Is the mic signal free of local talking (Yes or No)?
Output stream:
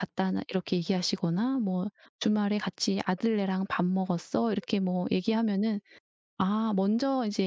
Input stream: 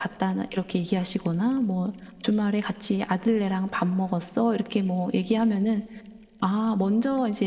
Yes